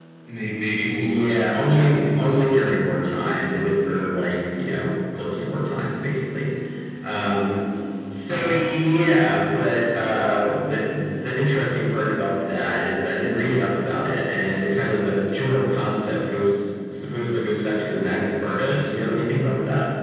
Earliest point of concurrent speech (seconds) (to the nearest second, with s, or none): 1 s